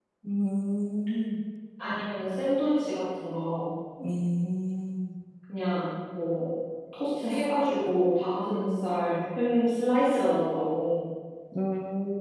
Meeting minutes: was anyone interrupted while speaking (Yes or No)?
No